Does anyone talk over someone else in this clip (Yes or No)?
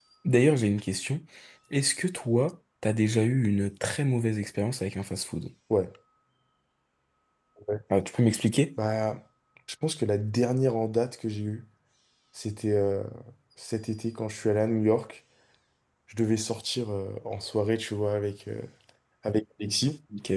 No